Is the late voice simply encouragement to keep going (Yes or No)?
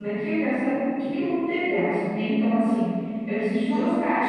Yes